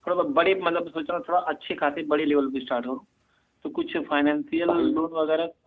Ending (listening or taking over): listening